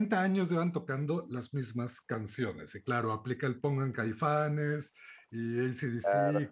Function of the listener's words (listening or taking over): listening